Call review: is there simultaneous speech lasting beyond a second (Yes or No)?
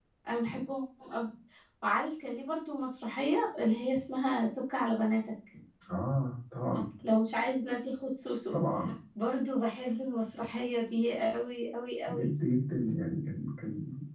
No